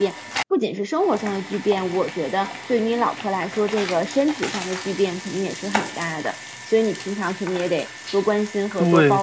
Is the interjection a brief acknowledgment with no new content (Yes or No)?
No